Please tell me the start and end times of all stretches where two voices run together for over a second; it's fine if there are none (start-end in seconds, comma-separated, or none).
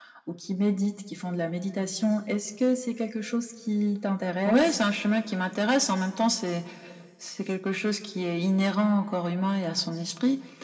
none